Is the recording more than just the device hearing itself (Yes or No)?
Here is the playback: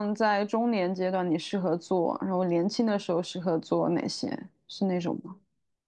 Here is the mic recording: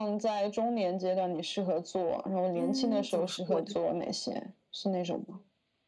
Yes